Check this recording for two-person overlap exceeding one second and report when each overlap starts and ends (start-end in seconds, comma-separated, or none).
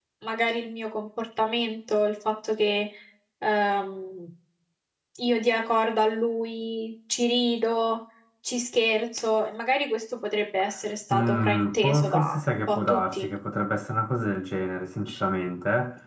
11.1-13.3